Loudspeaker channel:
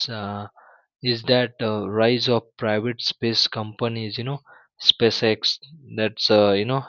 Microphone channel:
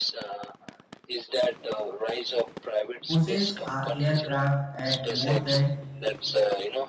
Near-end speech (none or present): present